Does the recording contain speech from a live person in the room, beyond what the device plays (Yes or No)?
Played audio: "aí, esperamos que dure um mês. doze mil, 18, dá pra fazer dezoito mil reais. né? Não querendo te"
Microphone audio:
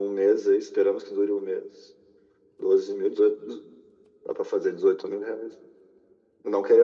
No